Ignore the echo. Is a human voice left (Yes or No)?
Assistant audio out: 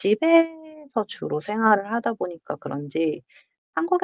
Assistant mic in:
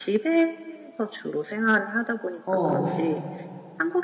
Yes